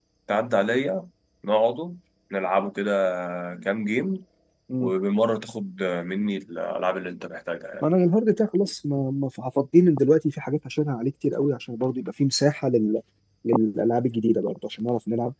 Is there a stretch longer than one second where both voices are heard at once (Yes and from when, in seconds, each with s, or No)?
No